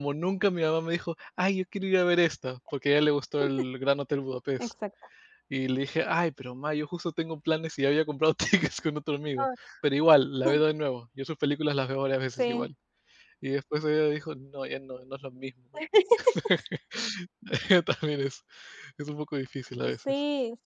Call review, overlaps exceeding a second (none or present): none